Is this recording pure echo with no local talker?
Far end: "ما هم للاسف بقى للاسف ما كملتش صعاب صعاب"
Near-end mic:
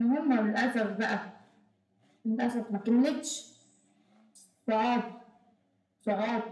Yes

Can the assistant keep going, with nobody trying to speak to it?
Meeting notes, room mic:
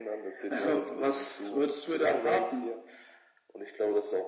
Yes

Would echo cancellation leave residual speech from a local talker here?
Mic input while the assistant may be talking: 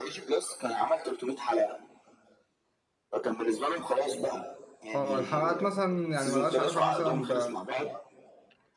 Yes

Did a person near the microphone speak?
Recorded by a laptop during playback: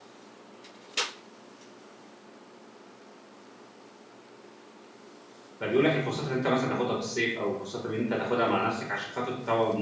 Yes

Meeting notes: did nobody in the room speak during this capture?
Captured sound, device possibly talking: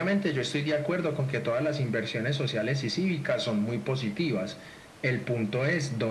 Yes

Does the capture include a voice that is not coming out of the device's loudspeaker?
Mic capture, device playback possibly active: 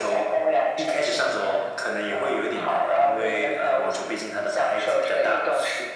No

